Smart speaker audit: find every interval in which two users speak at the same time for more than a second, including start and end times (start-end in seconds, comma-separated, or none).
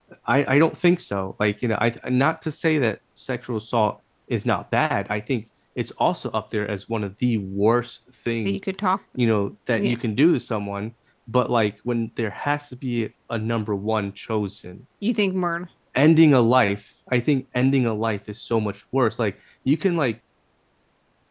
none